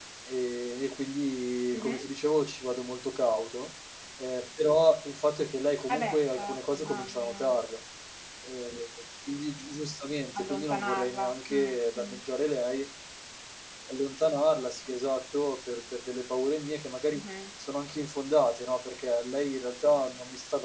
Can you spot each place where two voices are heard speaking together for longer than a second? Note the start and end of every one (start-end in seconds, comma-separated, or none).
5.9-7.6, 10.4-12.2